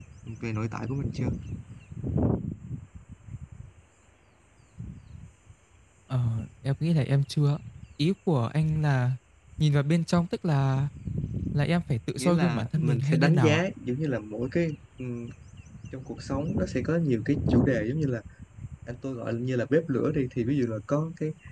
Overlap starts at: 12.2 s

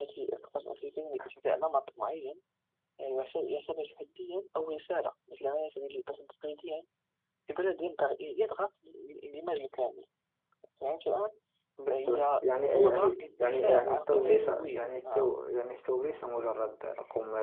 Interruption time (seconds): 11.9 s

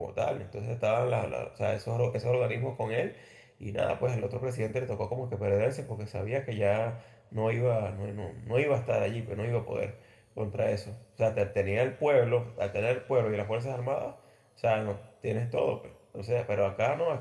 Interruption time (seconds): none

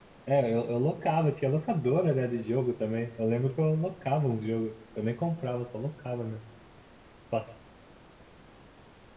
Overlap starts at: none

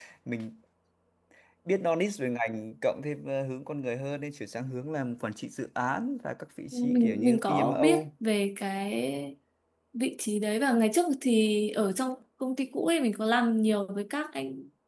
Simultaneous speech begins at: 6.7 s

